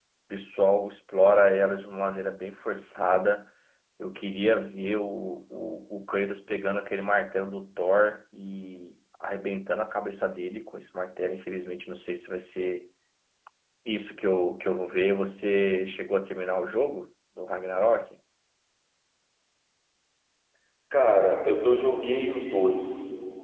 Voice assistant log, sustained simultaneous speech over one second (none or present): none